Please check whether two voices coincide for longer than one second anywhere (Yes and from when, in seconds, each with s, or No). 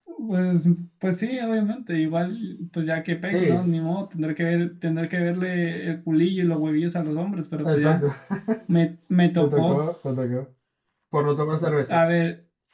No